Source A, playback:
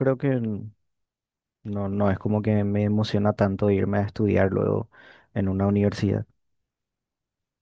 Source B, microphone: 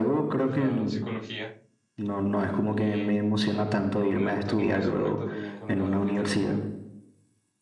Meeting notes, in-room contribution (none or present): present